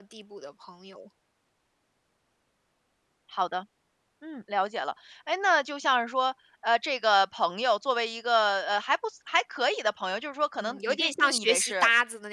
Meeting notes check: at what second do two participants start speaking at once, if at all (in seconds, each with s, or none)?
10.6 s